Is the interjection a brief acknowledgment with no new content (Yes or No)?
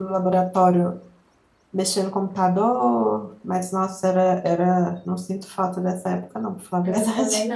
No